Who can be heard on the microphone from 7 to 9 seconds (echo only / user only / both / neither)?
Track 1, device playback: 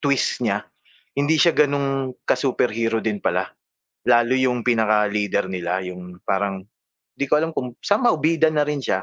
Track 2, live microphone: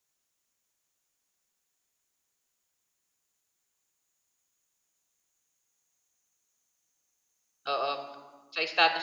user only